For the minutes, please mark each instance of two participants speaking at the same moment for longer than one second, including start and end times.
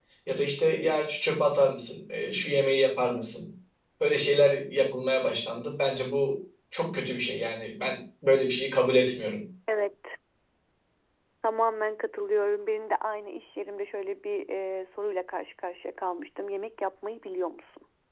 none

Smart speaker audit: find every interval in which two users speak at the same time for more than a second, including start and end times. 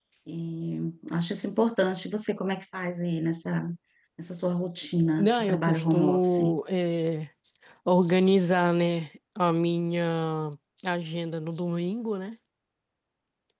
5.2-6.6

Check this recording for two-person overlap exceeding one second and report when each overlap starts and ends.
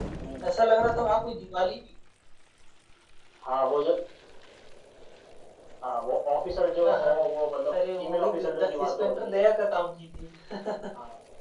7.7-9.4

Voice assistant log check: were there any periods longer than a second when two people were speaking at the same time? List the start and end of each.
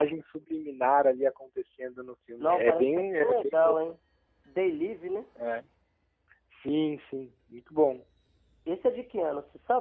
2.4-3.7

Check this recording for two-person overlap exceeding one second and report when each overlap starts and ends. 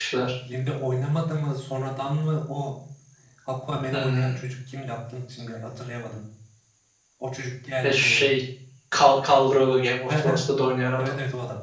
none

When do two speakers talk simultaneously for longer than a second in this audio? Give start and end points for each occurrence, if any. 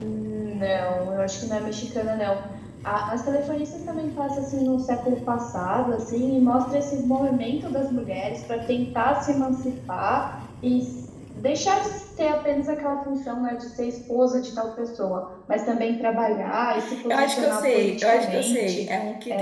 17.1-18.9

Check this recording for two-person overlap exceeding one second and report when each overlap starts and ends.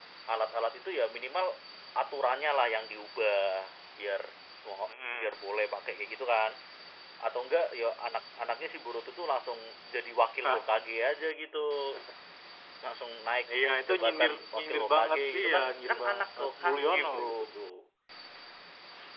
13.9-17.5

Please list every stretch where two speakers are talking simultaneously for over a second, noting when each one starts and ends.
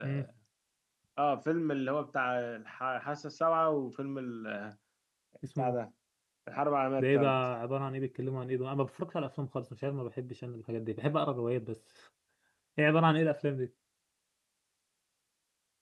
none

